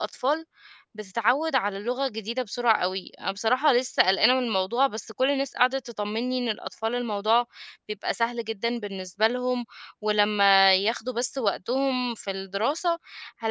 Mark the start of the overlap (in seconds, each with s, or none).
none